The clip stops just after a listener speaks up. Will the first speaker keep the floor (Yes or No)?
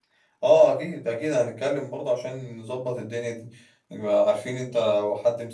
Yes